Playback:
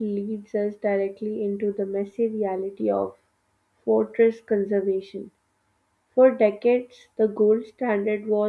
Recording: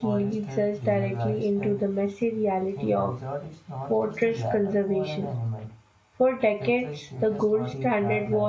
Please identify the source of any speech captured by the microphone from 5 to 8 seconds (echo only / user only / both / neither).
both